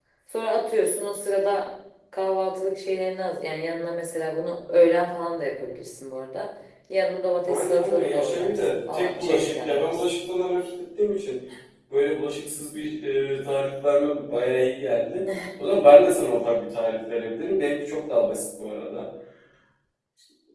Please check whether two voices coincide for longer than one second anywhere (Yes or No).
Yes